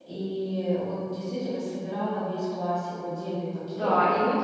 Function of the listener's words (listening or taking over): taking over